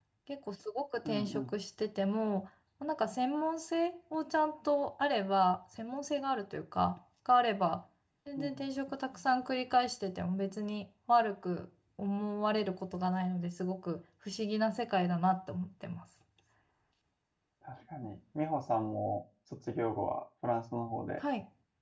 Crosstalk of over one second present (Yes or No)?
No